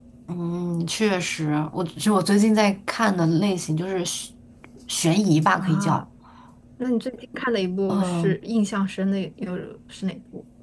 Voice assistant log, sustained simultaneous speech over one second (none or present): none